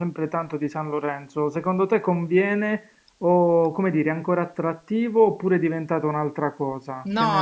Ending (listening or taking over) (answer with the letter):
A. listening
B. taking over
B